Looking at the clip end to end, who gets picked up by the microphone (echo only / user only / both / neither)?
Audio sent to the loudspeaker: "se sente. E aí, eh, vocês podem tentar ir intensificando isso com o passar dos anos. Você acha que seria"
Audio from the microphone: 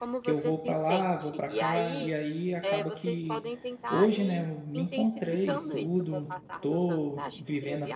both